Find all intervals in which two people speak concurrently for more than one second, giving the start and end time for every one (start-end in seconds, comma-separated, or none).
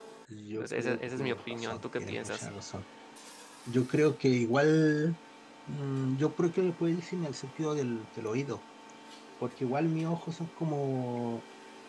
0.6-2.5